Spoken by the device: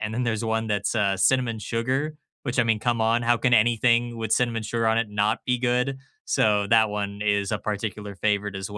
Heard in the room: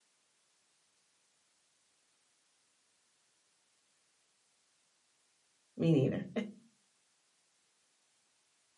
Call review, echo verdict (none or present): none